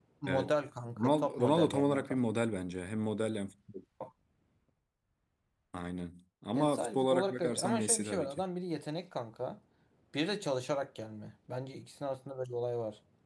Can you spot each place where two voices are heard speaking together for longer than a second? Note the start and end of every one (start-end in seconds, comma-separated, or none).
1.0-2.2, 6.5-8.4